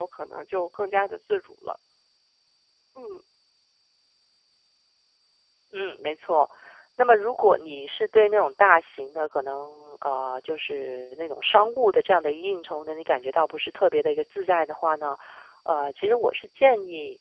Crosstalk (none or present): none